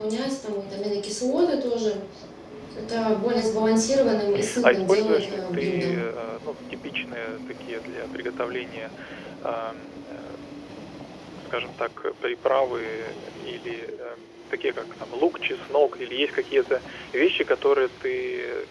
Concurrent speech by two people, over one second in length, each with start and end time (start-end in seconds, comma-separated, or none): 3.9-6.0